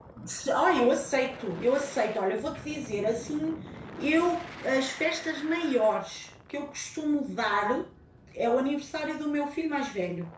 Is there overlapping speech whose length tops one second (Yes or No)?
No